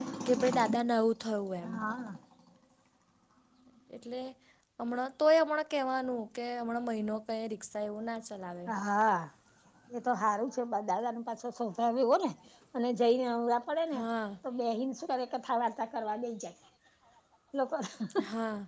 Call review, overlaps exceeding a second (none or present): none